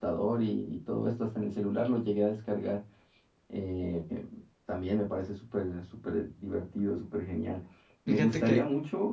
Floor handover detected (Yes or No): No